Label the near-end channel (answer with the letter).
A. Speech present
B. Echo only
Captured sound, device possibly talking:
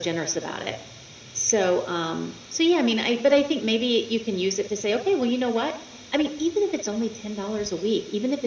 B